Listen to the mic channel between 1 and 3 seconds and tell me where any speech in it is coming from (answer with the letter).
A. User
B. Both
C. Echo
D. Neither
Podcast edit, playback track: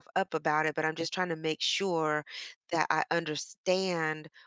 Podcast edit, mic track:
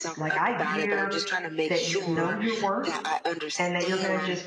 B